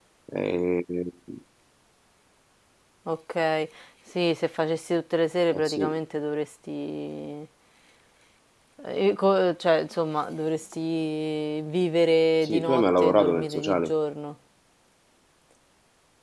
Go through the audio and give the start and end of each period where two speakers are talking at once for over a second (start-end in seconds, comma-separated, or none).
12.4-13.9